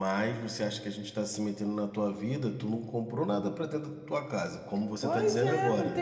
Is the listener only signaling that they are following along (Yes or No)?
No